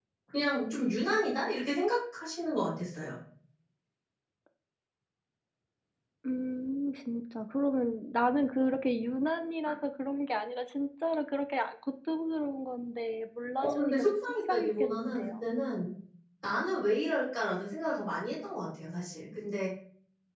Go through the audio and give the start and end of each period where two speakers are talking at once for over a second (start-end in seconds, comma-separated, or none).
13.6-15.4